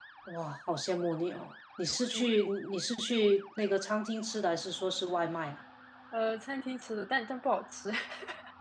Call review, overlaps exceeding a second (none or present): none